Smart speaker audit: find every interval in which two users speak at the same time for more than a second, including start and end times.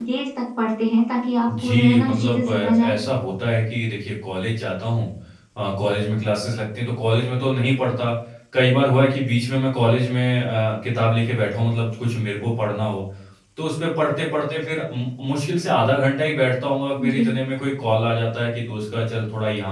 1.5-3.0

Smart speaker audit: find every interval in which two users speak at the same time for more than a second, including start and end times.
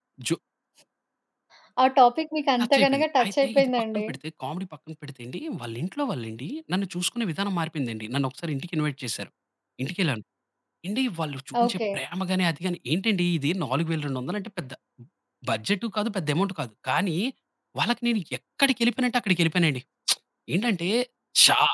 2.6-4.1

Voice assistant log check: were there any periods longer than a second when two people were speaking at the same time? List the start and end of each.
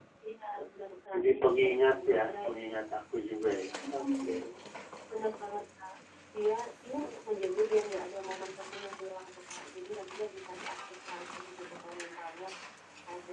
1.1-2.5

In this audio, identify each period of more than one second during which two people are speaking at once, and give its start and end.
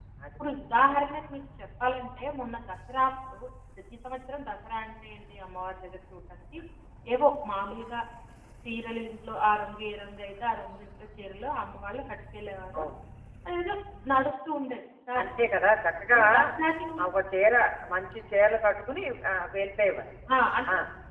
none

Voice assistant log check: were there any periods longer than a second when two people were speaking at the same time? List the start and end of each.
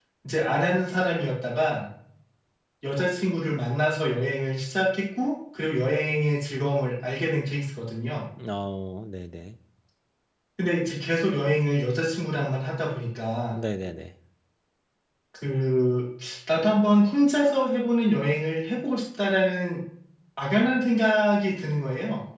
none

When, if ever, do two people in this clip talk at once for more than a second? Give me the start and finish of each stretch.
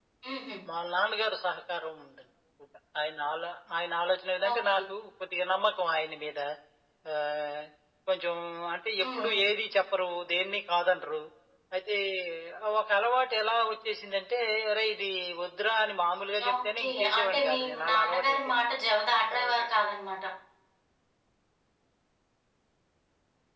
16.5-18.6

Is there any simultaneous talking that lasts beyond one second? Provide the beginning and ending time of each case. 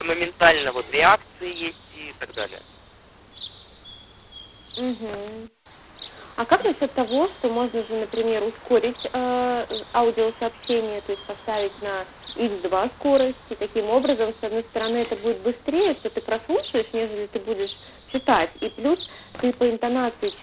none

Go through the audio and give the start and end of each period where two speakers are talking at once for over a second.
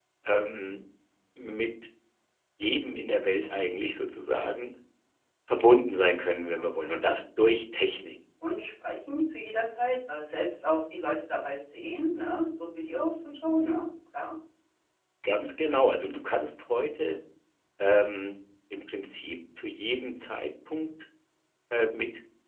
none

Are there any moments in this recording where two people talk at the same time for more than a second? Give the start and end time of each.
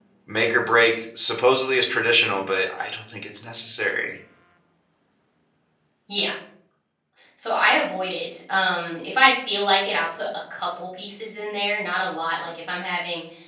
none

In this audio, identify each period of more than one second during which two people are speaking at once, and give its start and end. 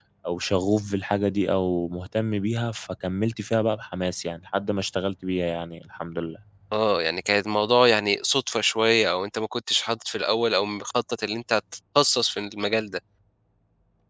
none

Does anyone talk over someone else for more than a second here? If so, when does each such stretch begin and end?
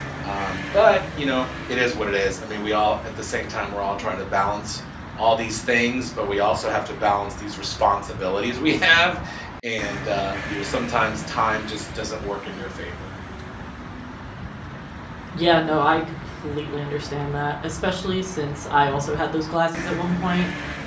none

